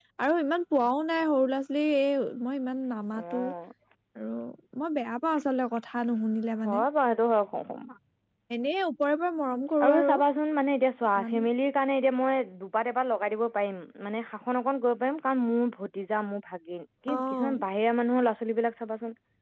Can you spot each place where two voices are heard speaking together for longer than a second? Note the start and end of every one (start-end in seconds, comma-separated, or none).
none